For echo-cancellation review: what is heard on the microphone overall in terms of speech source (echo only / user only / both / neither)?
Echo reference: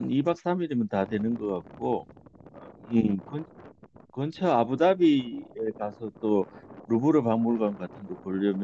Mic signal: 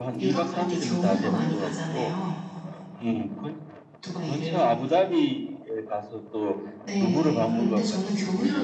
both